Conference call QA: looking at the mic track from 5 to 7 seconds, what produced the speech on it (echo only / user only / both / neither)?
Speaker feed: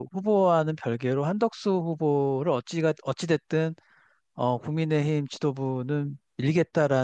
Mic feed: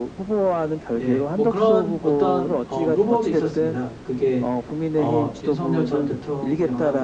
both